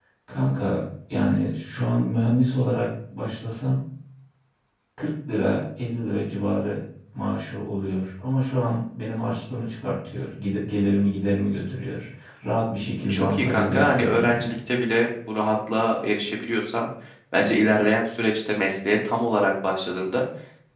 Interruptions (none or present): present